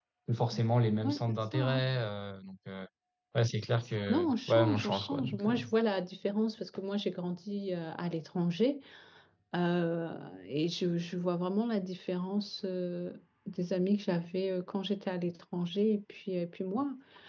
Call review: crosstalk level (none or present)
present